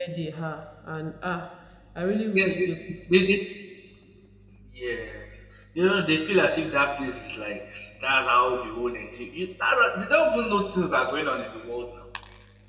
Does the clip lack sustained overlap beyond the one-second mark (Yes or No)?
Yes